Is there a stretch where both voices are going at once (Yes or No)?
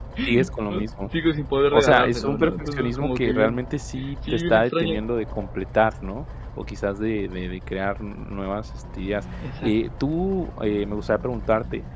Yes